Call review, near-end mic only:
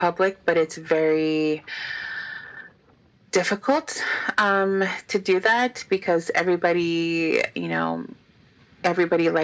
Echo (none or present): present